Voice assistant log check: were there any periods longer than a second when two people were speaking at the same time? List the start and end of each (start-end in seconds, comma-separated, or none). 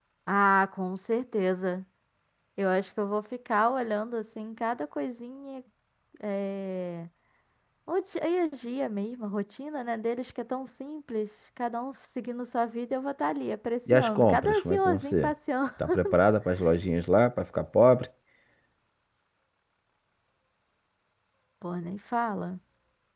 13.9-15.3